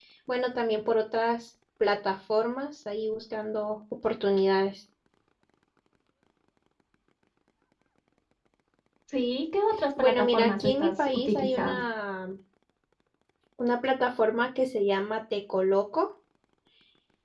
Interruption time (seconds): 10.0 s

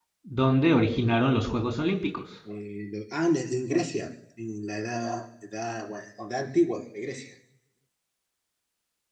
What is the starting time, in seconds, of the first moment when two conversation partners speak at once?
none

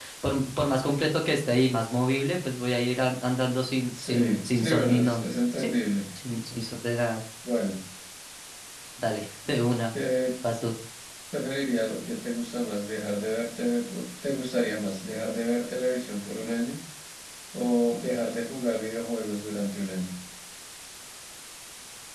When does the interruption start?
3.9 s

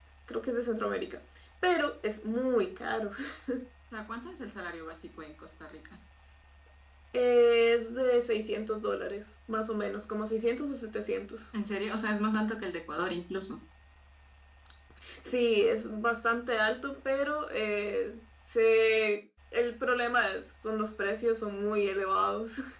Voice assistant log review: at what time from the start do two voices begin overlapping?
none

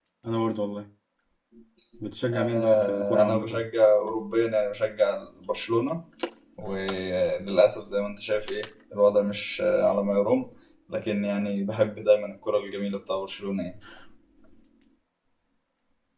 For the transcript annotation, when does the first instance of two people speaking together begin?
2.3 s

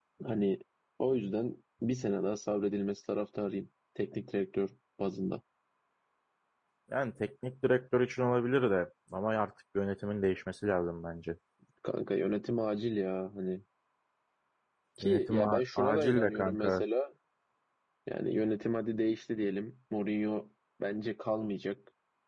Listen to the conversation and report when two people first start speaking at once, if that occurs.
15.0 s

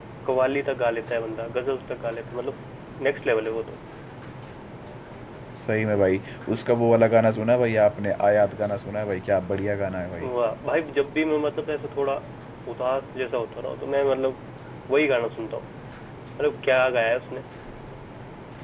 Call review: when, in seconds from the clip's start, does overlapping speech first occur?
none

